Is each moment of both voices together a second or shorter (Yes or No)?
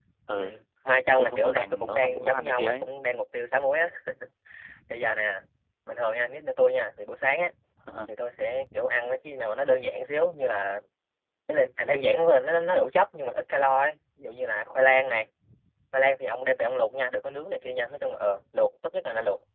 No